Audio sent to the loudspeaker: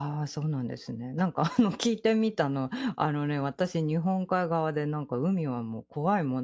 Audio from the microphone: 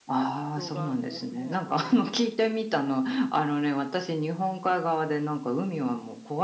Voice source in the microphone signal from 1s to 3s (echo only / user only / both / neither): both